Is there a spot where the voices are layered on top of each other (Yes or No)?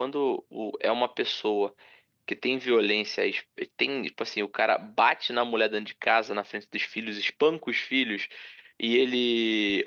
No